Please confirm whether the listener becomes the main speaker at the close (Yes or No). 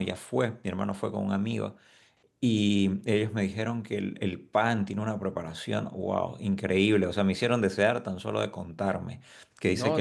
Yes